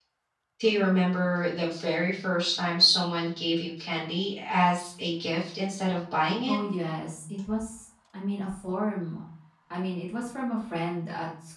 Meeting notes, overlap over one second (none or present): none